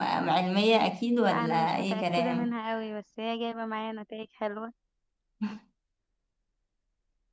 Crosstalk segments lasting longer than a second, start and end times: 1.1-2.5

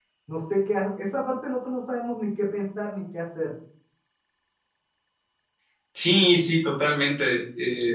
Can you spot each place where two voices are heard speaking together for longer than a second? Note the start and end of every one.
none

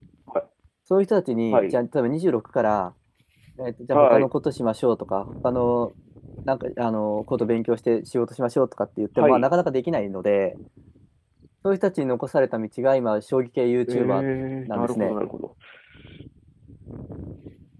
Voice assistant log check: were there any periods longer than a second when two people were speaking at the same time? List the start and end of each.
none

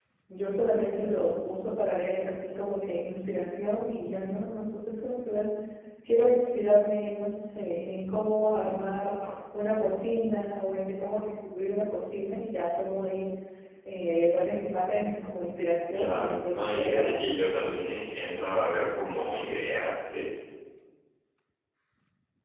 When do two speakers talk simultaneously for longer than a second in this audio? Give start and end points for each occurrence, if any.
15.9-17.2

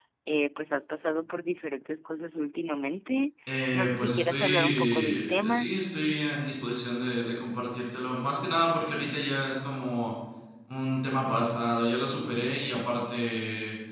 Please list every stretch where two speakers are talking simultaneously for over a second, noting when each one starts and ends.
3.7-5.7

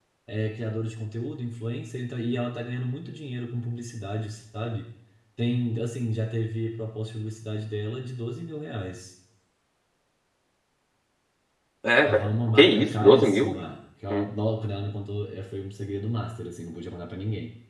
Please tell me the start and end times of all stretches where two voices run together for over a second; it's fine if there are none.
12.0-13.6

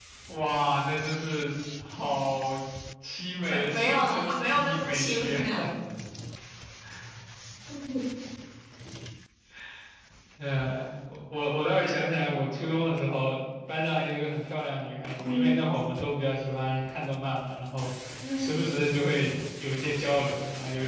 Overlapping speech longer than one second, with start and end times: 3.5-5.4

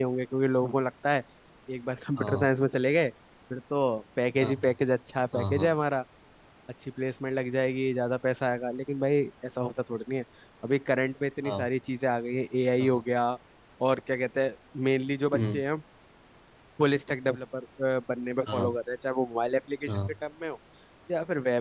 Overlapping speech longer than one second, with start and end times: none

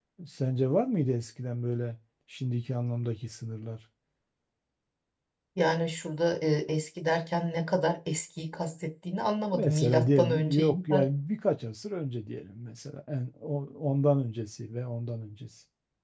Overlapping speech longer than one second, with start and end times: 9.5-10.8

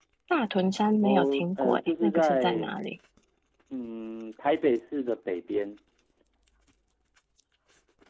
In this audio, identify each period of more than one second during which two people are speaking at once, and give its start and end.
1.0-2.7

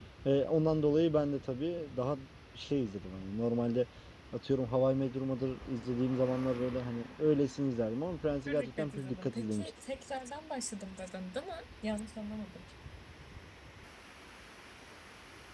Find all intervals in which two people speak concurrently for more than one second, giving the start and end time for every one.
8.5-9.7

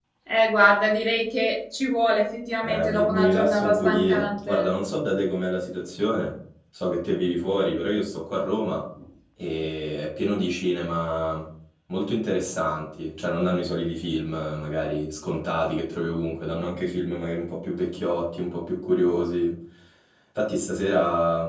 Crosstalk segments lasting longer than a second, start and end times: 2.6-4.7

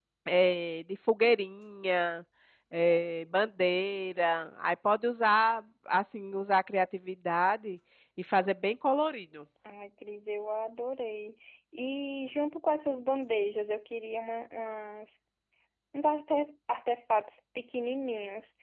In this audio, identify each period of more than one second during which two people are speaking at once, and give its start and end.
none

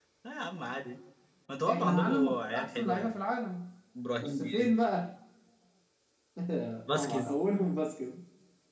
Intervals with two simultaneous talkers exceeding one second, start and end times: 1.7-3.1

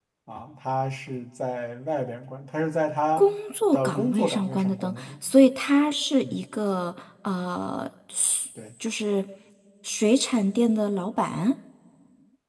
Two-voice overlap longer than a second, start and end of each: 3.7-5.2

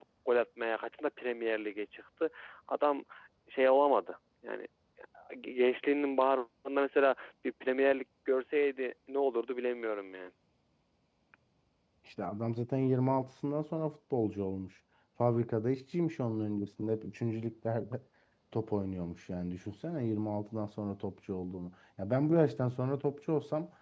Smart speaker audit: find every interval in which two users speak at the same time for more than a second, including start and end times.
none

